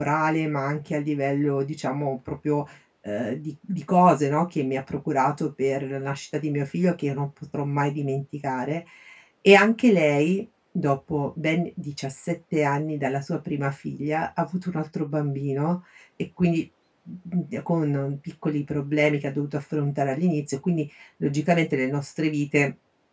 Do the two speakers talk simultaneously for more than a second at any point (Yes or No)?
No